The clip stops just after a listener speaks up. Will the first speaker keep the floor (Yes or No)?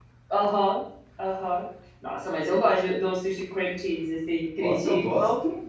No